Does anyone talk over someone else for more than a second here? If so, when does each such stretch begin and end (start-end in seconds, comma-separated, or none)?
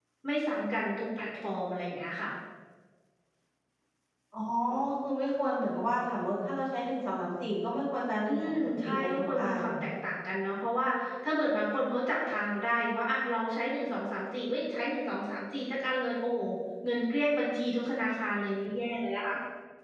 8.3-9.8